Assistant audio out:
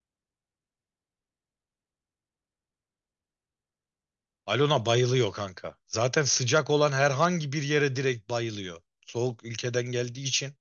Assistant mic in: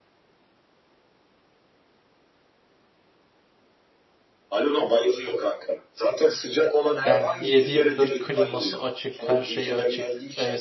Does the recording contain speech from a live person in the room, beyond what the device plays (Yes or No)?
Yes